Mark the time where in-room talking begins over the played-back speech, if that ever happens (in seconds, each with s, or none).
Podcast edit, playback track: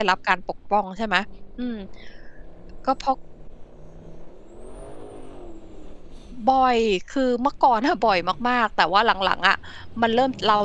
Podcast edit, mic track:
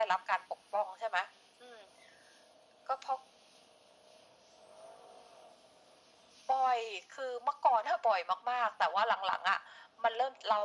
none